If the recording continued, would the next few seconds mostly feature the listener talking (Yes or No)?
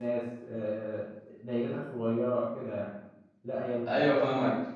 No